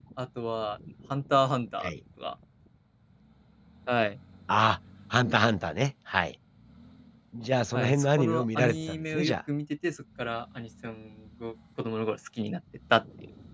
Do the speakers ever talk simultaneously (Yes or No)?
Yes